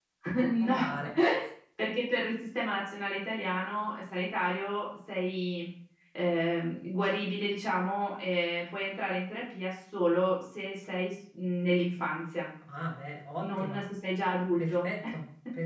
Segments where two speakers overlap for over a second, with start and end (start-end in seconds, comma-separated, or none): none